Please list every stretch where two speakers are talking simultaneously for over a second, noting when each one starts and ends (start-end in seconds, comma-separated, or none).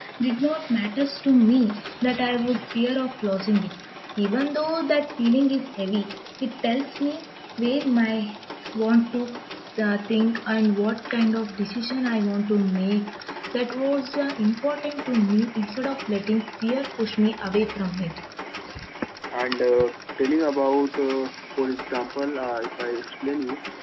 none